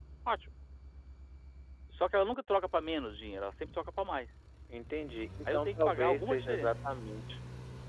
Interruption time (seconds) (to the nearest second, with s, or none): 5 s